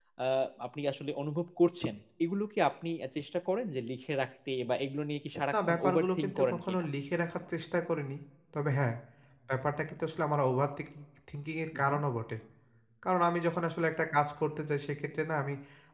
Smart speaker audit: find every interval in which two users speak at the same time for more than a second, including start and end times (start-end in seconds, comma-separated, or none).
5.5-6.8